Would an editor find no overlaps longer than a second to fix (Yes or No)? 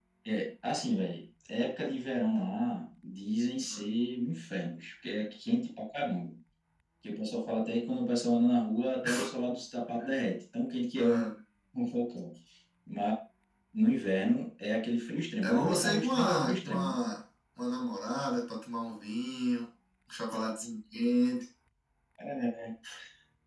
No